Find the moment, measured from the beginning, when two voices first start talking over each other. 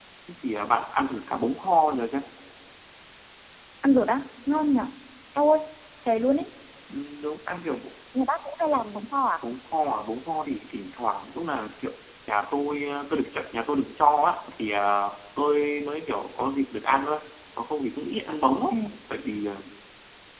none

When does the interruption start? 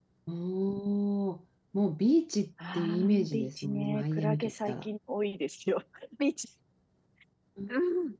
2.6 s

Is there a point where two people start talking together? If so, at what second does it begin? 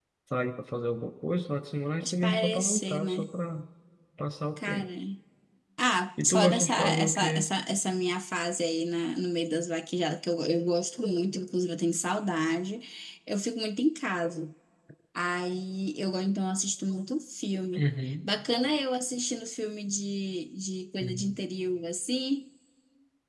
2.0 s

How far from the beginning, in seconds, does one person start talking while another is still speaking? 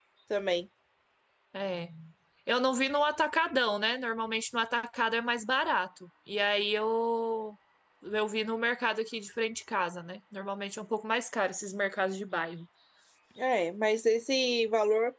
none

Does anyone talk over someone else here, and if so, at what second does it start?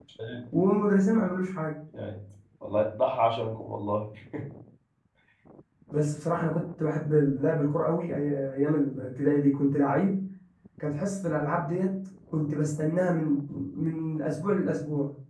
none

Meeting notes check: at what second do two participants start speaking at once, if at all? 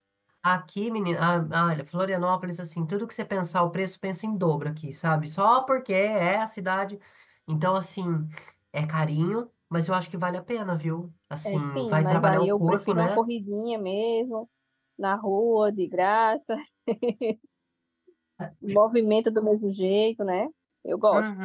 11.4 s

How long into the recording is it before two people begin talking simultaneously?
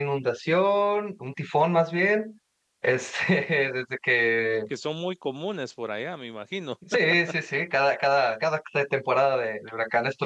none

